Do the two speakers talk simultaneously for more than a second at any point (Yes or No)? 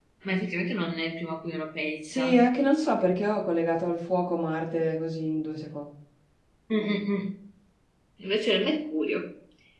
No